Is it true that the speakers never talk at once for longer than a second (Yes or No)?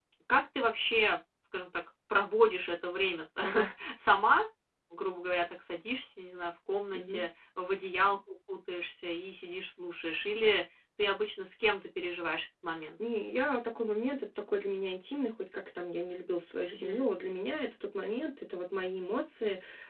Yes